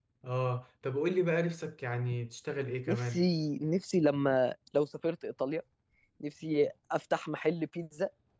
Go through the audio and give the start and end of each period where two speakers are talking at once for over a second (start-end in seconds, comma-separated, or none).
none